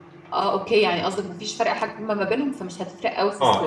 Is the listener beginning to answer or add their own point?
Yes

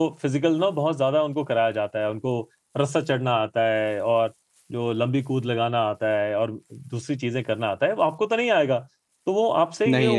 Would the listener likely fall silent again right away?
Yes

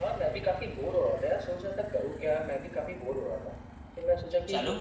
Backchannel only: Yes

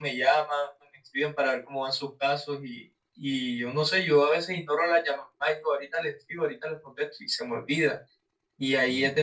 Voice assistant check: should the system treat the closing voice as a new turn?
No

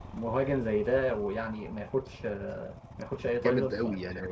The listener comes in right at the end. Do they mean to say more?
Yes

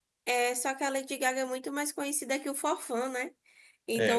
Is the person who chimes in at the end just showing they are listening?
Yes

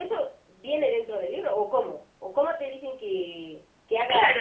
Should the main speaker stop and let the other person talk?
Yes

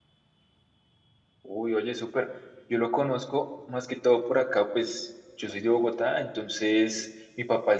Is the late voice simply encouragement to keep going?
Yes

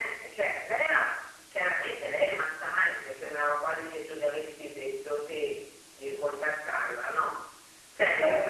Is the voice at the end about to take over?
No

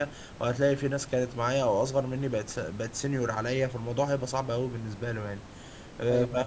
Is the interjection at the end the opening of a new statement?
No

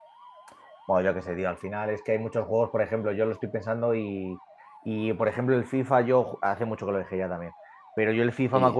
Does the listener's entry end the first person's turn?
No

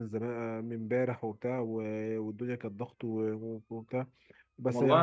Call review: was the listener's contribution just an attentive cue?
Yes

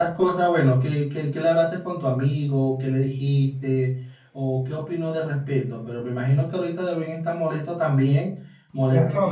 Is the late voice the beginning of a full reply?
Yes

